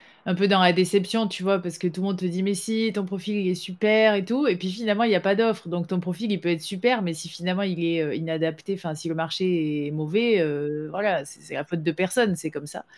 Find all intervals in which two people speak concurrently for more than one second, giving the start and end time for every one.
none

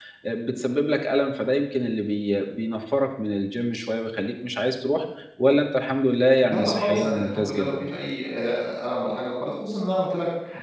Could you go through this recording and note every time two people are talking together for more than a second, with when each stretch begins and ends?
6.4-7.8

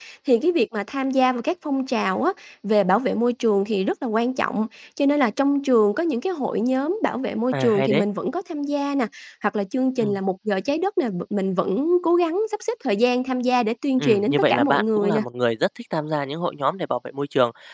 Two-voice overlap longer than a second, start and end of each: 14.0-15.2

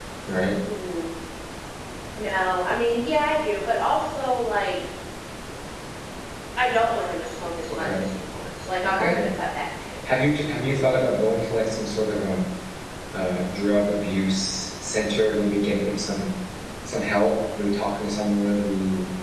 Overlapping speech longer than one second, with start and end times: none

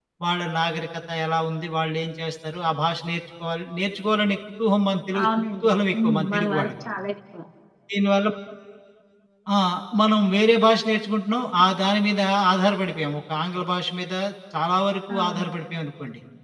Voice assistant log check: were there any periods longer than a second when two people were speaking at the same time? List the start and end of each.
5.2-6.7

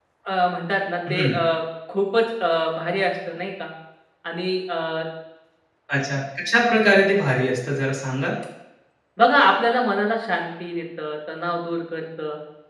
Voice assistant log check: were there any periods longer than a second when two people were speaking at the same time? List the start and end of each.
none

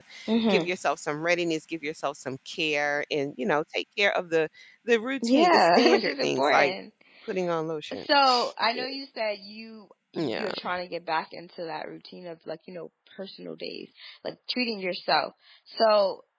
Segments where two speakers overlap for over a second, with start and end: 5.2-6.7

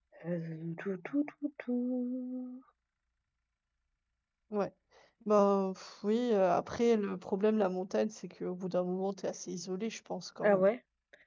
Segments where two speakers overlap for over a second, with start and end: none

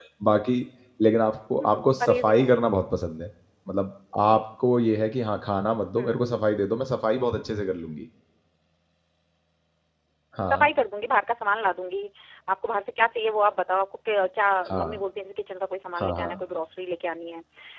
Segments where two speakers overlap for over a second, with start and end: 1.6-3.0

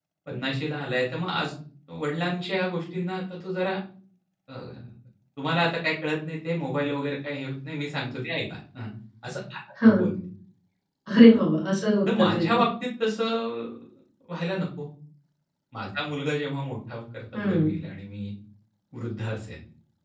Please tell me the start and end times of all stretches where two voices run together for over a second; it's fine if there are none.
none

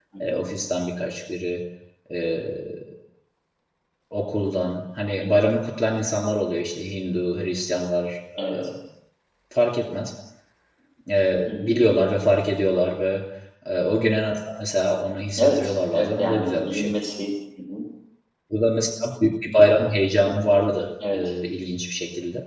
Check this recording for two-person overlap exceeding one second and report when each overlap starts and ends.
15.4-16.9

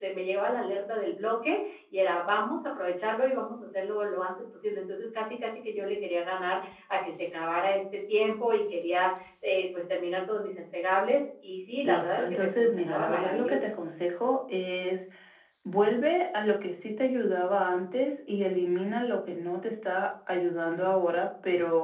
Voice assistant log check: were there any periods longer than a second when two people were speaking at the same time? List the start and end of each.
11.8-13.7

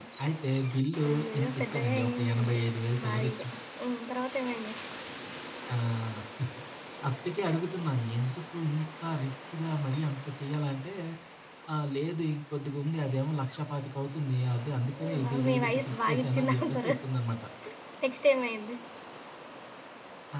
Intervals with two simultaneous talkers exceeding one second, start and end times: 1.1-2.6, 15.0-16.9

